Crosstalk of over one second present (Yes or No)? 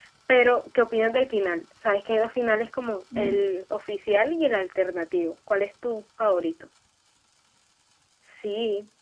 No